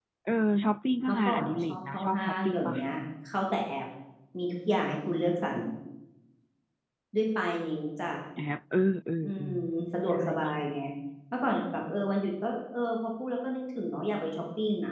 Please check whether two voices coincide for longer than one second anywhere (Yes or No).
Yes